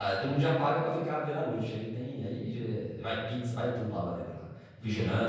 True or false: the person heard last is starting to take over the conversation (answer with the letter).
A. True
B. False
B